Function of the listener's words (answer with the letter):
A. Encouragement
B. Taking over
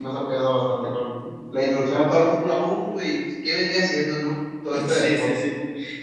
B